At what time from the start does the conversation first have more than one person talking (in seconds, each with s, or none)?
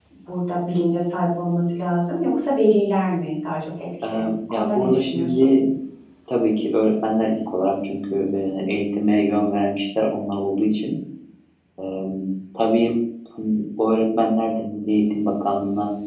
4.0 s